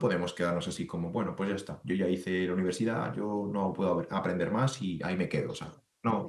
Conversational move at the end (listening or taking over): taking over